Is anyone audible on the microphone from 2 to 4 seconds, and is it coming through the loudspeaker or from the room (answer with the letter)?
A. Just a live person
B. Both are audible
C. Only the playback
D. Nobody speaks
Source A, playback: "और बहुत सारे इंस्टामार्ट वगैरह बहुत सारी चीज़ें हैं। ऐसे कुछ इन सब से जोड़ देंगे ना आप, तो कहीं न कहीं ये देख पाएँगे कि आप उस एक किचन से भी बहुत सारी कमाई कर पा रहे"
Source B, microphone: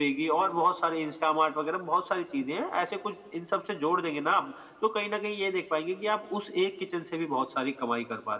C